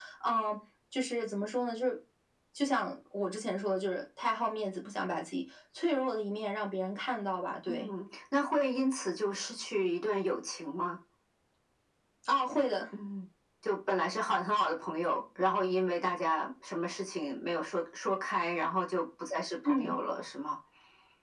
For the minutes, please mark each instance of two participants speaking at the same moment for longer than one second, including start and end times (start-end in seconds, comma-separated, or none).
none